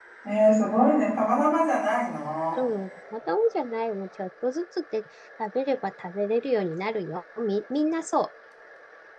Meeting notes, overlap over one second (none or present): none